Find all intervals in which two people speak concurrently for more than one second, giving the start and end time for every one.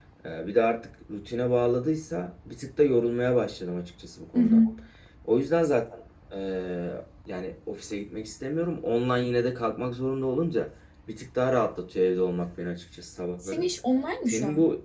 none

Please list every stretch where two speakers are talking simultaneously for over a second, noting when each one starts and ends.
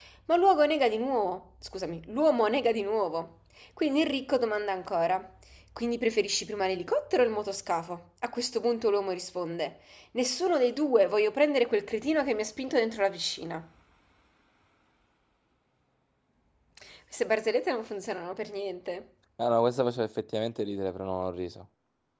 none

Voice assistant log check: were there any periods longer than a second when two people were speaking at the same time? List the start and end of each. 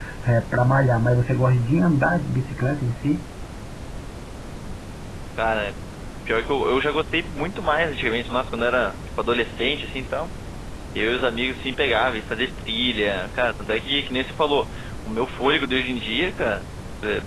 none

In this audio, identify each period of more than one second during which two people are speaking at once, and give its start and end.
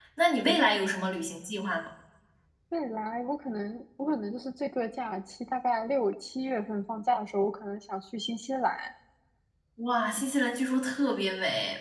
none

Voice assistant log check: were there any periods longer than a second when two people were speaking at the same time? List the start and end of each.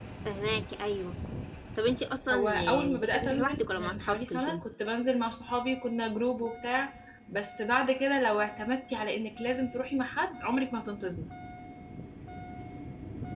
2.3-4.6

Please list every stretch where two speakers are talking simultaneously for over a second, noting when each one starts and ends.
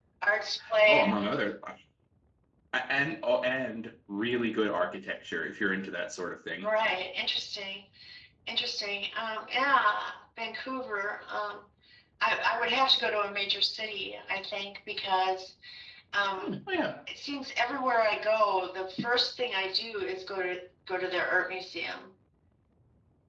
none

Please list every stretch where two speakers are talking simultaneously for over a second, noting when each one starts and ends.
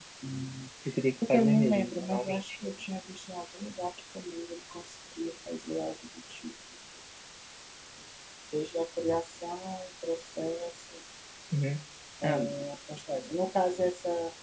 1.3-2.5

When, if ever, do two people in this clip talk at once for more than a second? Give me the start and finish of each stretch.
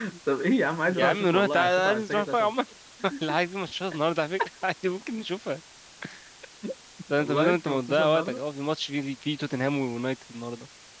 0.9-2.5, 7.2-8.4

